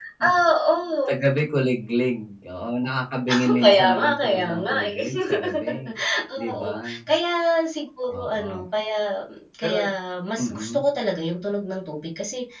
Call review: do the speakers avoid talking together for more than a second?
No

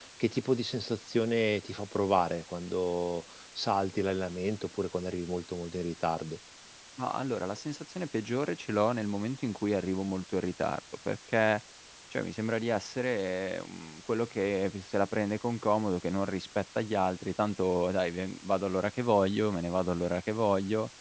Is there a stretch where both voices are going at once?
No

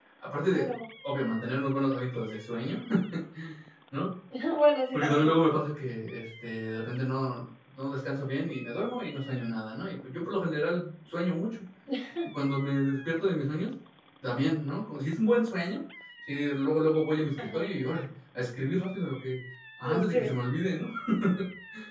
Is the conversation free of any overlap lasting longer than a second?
Yes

